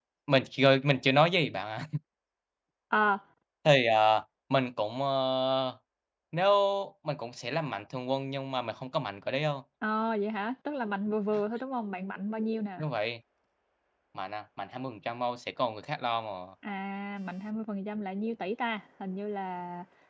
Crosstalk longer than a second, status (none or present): none